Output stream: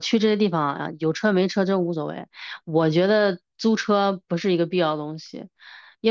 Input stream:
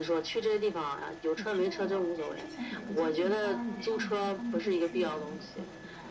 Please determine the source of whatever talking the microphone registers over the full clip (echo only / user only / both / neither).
both